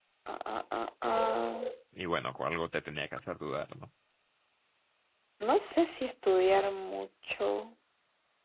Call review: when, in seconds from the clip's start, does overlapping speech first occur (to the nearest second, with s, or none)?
none